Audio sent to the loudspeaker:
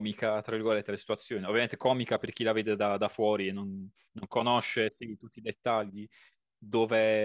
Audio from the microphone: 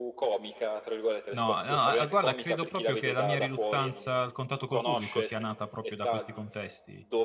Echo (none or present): present